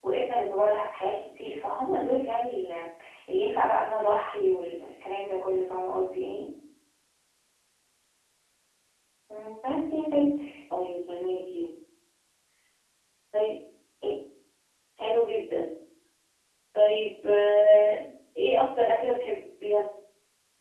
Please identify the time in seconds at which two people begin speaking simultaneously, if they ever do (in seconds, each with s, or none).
none